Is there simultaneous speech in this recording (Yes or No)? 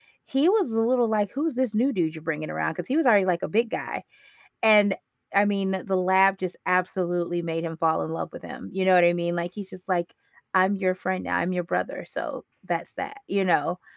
No